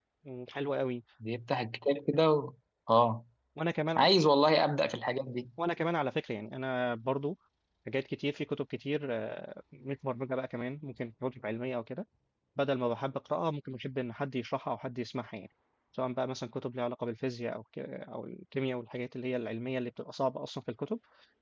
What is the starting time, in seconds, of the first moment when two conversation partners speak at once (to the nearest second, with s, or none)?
none